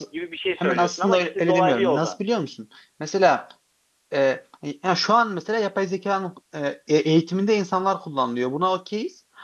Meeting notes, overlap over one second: present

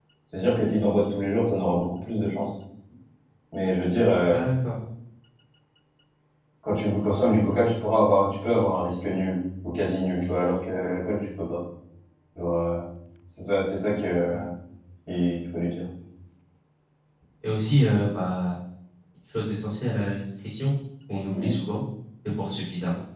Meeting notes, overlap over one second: none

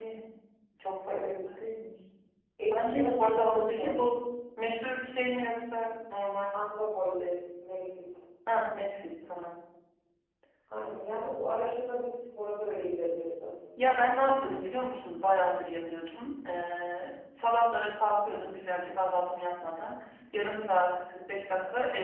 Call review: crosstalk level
present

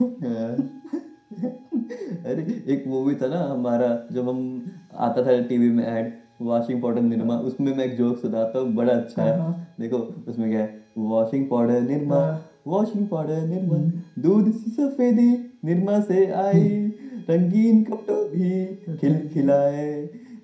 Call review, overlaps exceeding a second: none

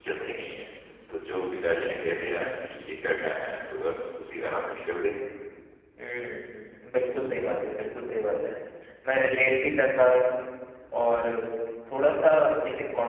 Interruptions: none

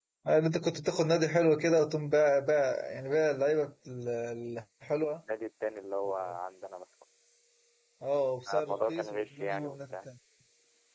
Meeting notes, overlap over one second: present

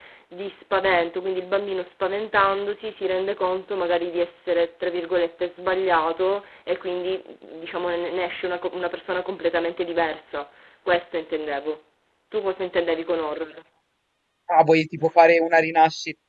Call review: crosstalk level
none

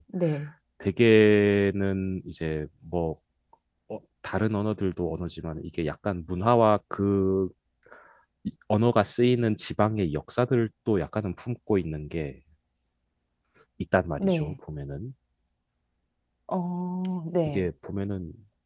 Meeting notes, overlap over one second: none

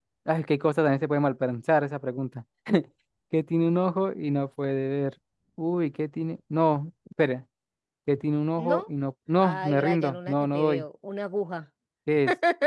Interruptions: present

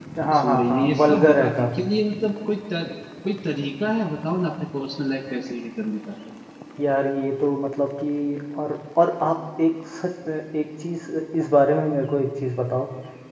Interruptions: present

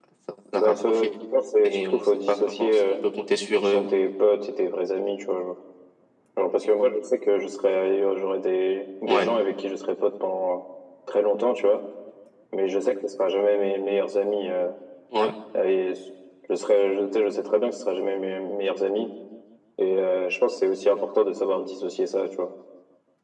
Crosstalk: present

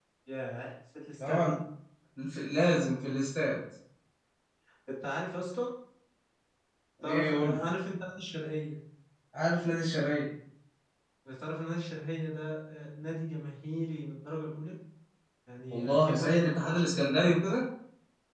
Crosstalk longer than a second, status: present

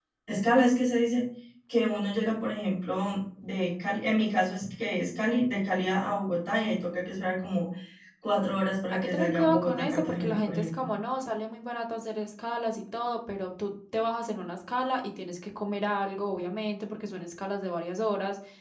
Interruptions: present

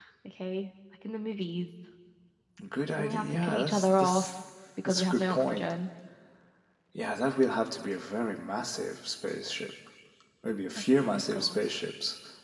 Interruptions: present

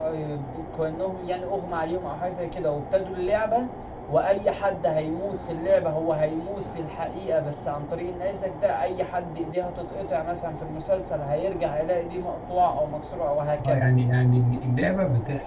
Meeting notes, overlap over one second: none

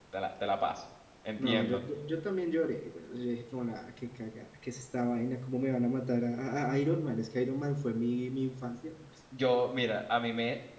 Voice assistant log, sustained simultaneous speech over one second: none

